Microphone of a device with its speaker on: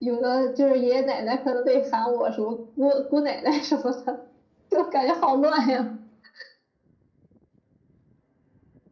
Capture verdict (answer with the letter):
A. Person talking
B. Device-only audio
B